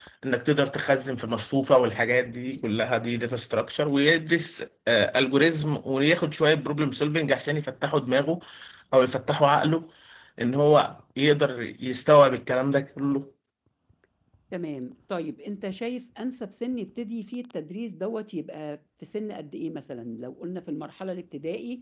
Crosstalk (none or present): none